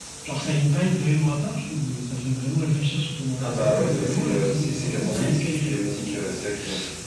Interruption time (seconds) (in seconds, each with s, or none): 3.4 s